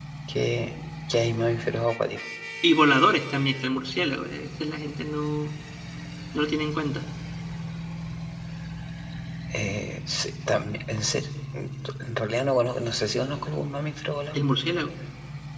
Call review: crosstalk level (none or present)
none